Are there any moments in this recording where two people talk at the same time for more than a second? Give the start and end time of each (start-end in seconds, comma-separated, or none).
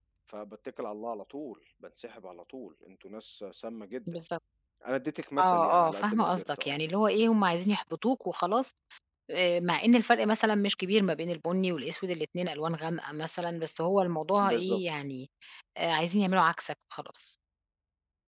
5.4-6.8